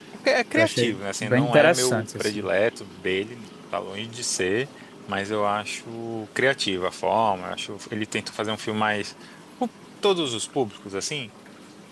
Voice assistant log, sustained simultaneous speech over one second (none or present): present